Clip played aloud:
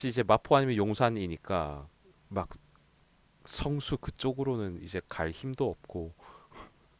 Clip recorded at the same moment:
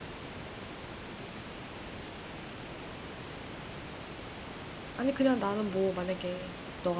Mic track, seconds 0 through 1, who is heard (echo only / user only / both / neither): neither